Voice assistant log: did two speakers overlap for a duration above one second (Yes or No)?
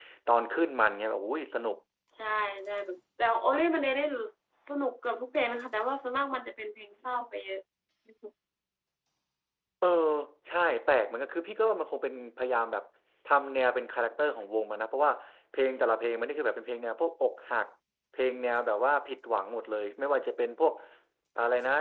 No